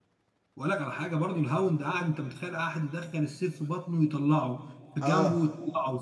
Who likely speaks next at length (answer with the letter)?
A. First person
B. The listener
A